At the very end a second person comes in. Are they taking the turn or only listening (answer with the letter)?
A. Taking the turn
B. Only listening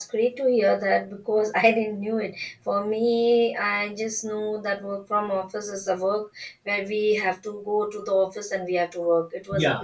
A